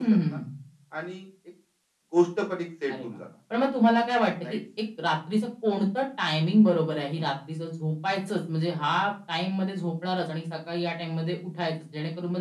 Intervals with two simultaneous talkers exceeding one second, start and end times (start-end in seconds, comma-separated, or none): none